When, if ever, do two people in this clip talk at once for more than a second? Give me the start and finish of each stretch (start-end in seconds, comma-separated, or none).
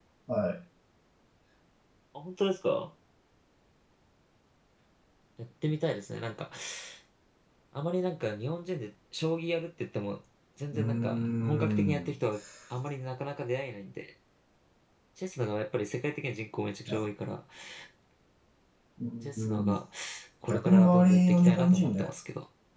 10.7-12.1, 20.4-22.1